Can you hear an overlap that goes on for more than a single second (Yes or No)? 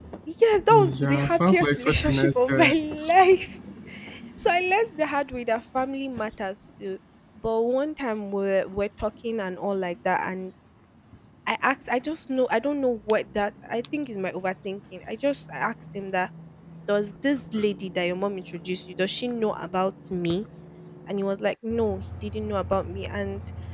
Yes